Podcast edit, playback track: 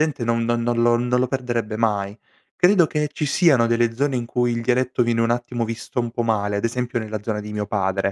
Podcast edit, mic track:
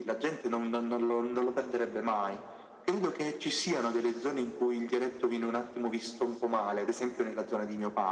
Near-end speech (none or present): none